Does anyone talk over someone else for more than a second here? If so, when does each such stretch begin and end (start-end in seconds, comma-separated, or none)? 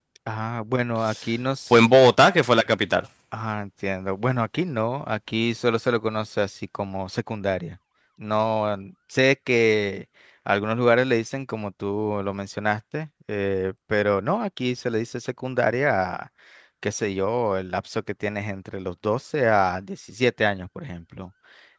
none